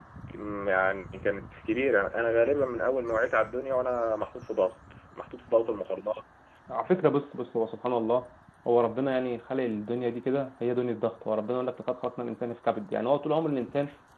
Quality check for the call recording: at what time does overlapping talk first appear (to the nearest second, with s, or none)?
none